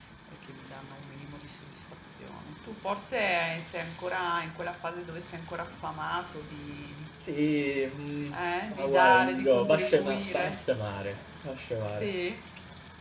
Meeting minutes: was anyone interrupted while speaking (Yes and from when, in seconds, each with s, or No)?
Yes, from 8.7 s